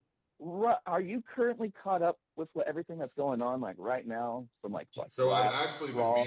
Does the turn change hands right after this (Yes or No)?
Yes